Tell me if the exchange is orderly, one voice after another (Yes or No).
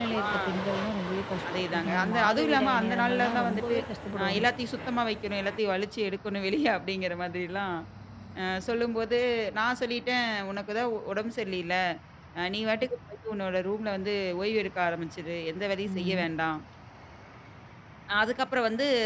No